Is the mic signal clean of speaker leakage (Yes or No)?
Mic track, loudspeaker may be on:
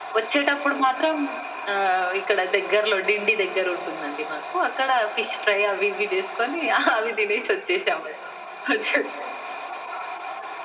No